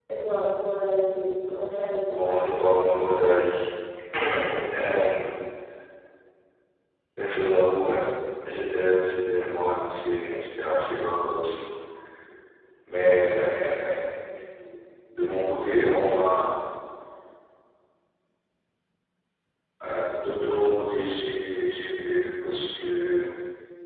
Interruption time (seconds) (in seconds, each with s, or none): 2.2 s